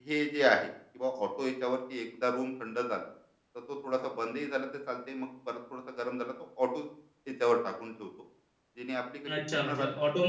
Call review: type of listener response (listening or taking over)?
taking over